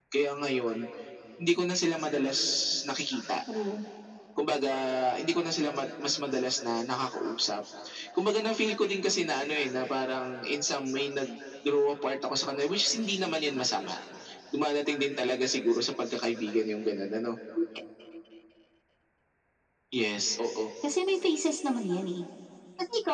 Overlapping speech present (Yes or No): No